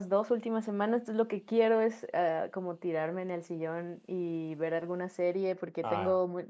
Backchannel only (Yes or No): Yes